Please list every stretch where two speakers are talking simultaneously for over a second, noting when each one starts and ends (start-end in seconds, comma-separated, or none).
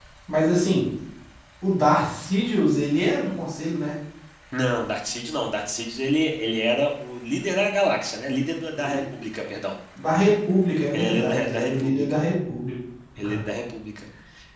10.9-12.2